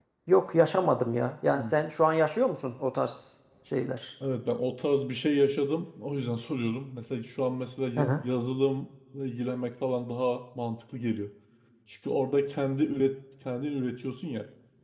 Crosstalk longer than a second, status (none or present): none